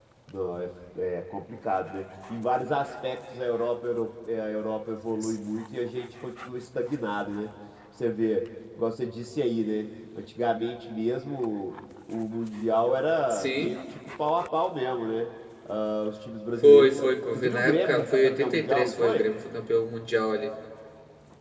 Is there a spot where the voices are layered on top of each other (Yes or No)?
Yes